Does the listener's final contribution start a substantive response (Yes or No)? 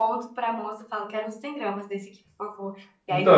Yes